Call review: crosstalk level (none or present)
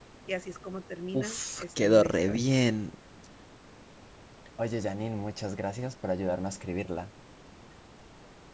present